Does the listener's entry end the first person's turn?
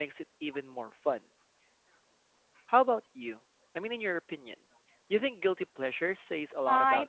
Yes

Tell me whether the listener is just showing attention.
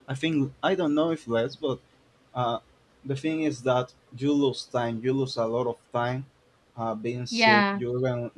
Yes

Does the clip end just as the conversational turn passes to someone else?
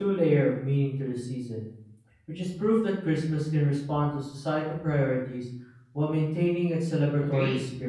Yes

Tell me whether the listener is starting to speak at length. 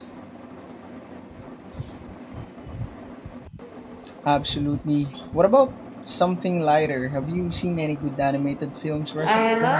Yes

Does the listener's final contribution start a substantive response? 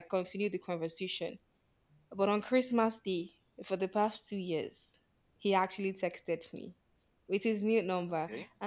No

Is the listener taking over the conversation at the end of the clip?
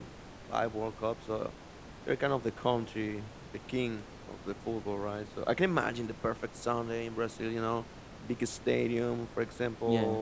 No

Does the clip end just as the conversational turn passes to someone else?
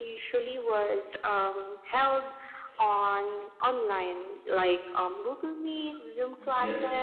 No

